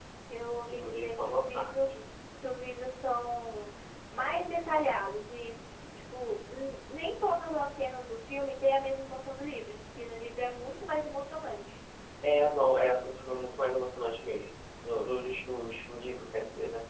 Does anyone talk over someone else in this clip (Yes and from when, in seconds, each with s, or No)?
Yes, from 0.7 s